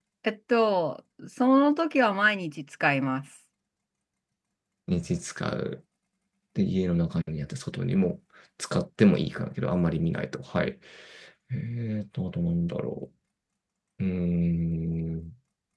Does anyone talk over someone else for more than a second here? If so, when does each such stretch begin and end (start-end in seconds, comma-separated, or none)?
none